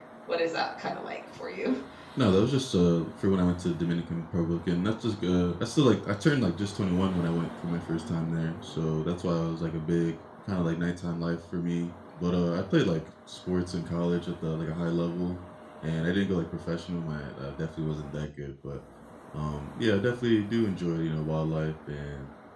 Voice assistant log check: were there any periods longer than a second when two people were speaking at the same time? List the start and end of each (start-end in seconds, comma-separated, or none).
none